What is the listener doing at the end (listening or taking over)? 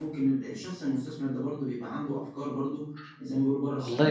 taking over